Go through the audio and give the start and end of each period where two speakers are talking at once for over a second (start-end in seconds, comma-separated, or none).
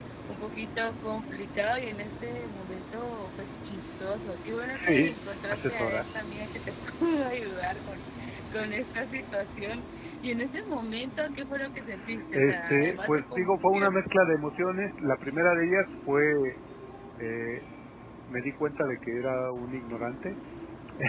4.8-6.0, 12.3-14.0